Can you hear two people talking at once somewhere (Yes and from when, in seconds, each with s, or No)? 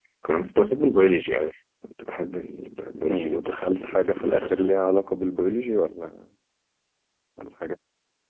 Yes, from 3.1 s